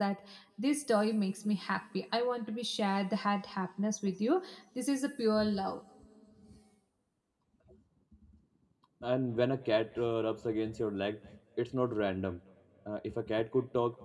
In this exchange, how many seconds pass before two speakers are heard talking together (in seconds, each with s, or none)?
none